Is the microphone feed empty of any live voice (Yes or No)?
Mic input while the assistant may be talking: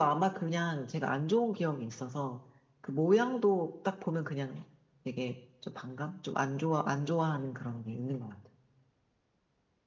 Yes